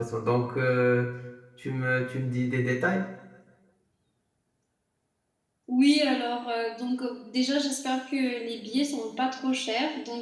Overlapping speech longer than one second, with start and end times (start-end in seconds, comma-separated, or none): none